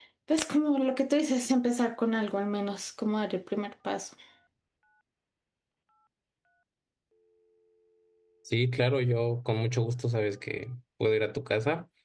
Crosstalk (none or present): none